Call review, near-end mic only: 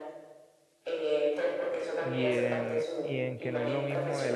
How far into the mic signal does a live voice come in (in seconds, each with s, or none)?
2.0 s